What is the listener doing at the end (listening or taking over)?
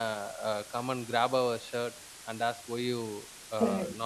listening